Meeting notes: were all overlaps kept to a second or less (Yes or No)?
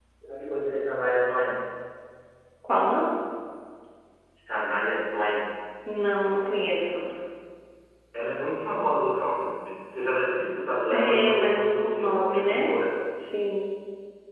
No